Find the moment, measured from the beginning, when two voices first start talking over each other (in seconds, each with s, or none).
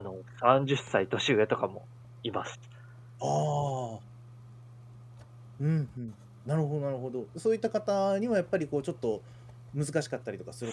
none